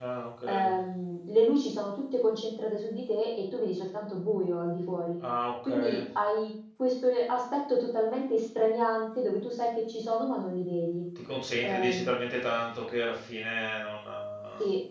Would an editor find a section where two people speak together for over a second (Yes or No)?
No